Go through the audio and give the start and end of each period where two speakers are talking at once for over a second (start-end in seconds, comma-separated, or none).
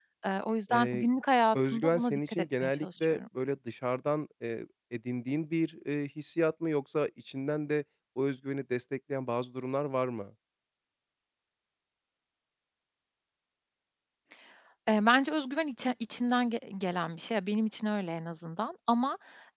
1.5-3.2